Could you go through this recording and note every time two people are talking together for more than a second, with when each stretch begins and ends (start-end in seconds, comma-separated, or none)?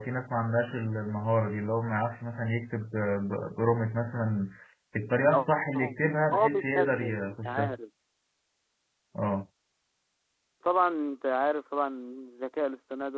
6.3-7.8